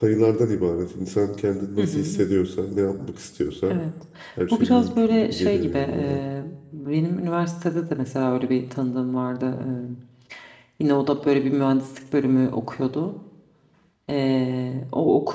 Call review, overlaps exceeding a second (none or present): present